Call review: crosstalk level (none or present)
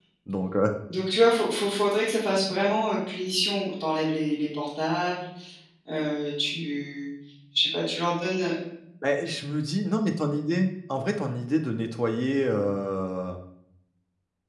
none